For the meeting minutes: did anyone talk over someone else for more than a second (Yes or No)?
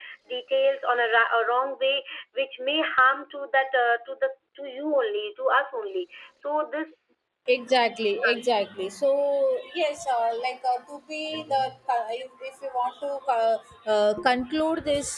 No